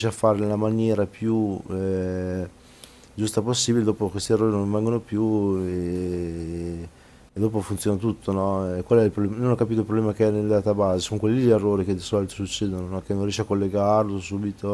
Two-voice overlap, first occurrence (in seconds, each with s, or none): none